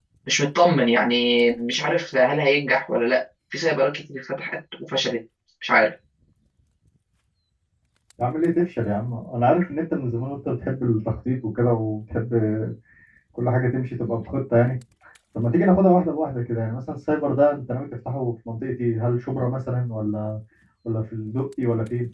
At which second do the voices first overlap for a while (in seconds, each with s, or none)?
none